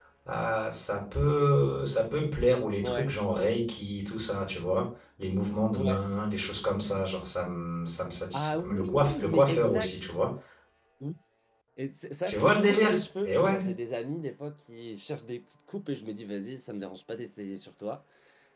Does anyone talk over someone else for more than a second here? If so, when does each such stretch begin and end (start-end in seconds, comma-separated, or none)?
8.3-9.9, 12.3-13.7